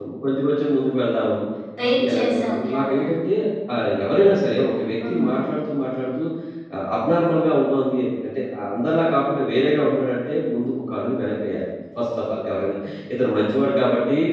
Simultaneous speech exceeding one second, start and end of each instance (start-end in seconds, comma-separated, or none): 1.8-3.1